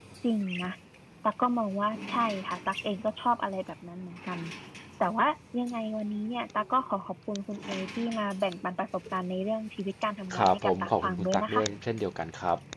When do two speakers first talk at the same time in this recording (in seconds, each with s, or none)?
10.3 s